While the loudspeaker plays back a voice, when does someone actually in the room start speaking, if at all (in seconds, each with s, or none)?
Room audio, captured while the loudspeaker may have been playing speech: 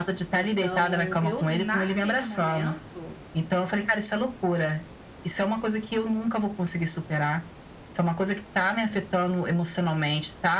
0.3 s